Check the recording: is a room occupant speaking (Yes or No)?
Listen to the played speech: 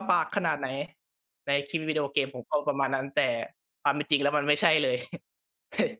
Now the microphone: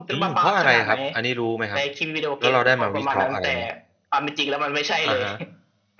Yes